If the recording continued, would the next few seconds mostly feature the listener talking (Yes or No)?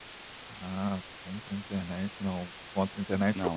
No